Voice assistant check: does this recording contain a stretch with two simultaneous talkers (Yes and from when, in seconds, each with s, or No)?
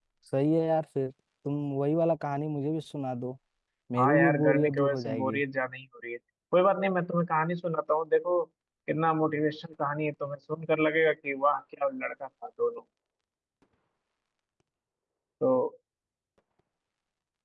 Yes, from 4.0 s